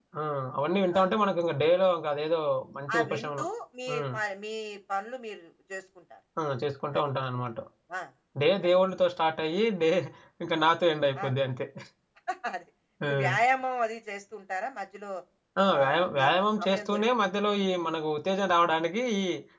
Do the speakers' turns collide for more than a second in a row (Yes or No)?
No